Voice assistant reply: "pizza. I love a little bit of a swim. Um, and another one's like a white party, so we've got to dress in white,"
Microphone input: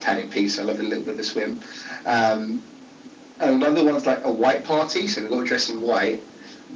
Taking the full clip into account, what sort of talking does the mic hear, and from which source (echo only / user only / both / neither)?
echo only